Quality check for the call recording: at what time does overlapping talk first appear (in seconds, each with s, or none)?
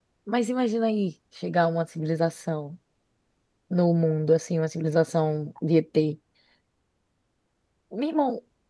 none